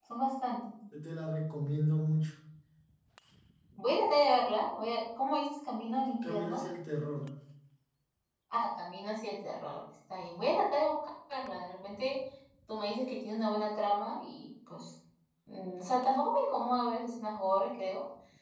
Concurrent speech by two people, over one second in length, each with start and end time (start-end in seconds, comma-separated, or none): none